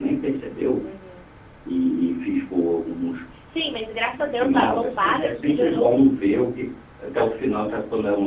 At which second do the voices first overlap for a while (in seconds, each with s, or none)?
4.2 s